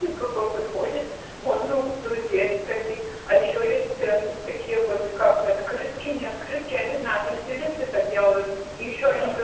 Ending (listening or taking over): listening